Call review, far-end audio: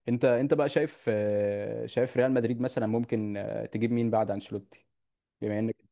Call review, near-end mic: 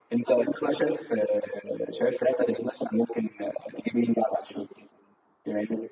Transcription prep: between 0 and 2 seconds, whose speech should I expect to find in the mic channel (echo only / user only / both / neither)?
echo only